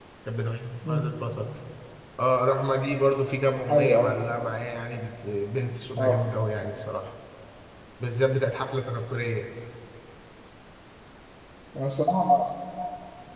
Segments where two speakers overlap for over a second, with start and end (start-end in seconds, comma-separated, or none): none